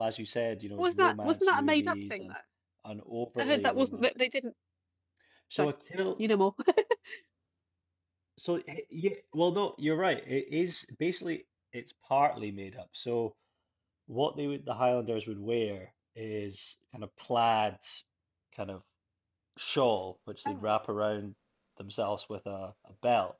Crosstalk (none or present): present